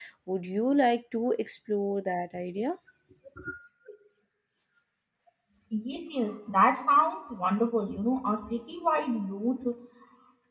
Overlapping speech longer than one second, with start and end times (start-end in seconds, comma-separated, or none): none